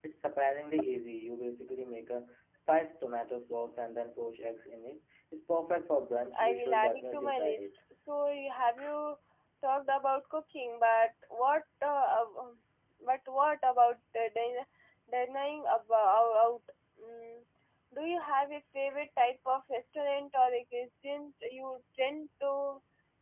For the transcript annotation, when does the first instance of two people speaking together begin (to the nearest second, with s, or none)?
6 s